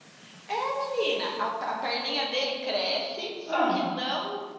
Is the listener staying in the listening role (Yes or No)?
Yes